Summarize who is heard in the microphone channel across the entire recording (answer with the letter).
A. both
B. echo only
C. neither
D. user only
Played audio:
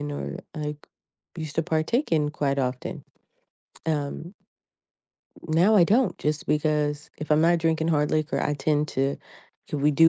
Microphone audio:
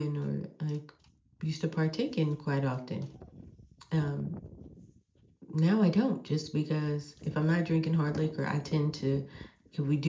B